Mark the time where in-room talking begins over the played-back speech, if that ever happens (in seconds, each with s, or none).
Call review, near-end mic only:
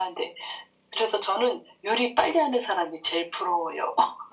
none